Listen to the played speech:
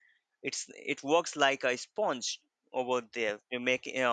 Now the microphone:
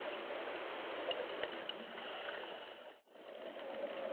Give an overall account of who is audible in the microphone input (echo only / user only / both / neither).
neither